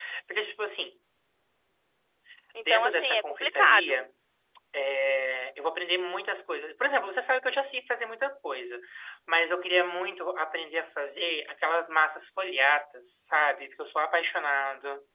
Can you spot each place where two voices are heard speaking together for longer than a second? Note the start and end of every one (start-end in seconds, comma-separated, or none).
2.6-4.0